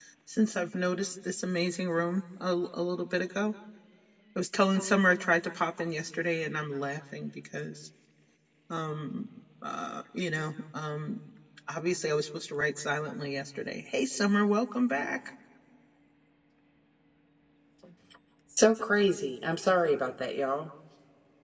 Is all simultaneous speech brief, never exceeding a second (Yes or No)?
Yes